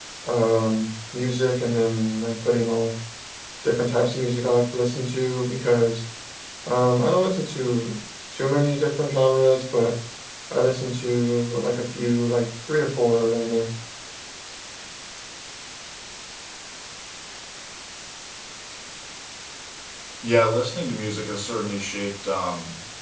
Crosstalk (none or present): none